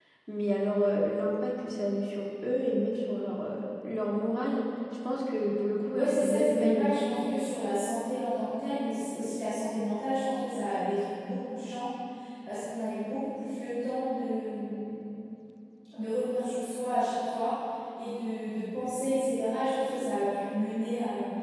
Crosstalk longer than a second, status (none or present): present